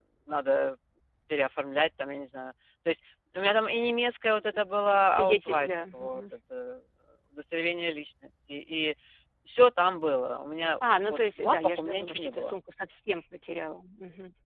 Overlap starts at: 4.9 s

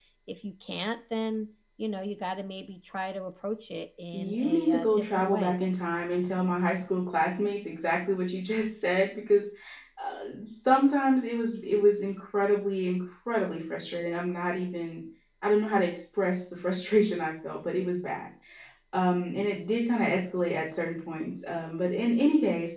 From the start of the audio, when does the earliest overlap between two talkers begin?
4.1 s

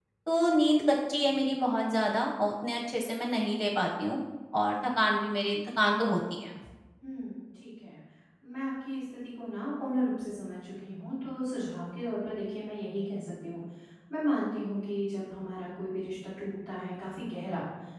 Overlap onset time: none

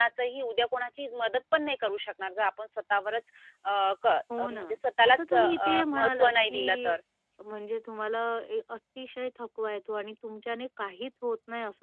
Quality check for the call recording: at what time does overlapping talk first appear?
4.3 s

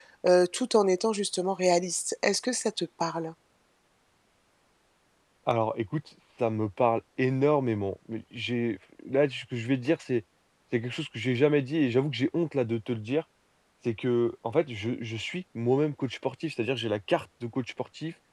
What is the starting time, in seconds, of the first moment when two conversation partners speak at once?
none

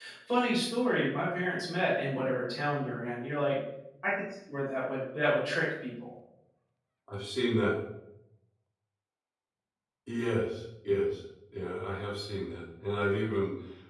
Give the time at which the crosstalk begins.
none

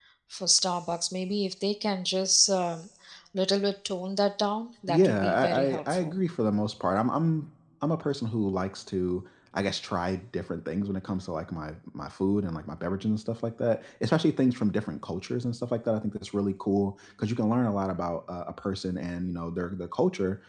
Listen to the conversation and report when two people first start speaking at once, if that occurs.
4.9 s

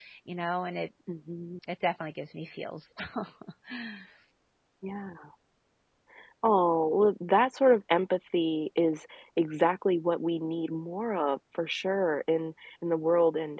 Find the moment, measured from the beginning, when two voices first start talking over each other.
none

